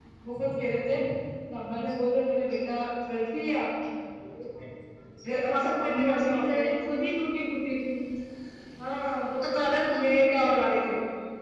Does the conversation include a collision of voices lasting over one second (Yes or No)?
Yes